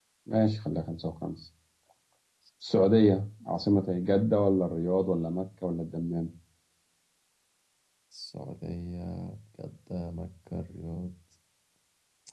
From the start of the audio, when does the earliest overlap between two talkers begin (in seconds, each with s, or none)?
none